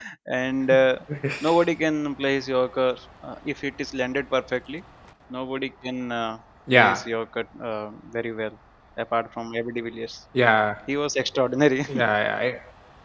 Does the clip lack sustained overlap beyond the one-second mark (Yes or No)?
Yes